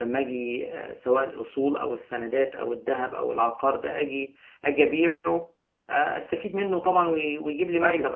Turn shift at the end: Yes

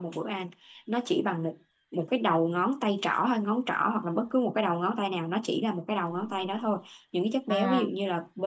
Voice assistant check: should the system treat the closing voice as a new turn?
No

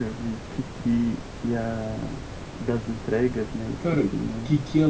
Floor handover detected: Yes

